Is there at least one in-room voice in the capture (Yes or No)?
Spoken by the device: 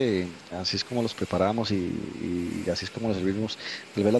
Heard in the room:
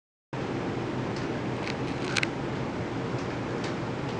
No